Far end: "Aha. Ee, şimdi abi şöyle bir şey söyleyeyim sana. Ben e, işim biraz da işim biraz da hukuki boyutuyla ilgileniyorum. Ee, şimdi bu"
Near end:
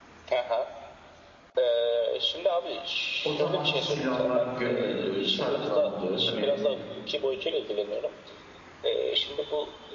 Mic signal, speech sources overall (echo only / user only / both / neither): both